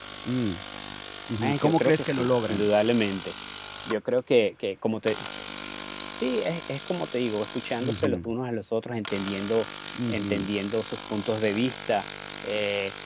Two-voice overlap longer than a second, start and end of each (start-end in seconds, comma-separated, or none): 1.4-2.7